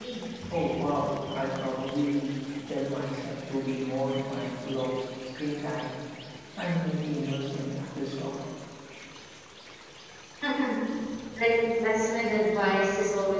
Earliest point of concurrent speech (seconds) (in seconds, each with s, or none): none